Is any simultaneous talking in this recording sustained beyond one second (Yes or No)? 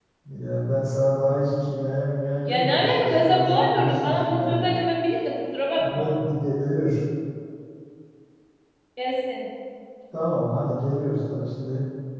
Yes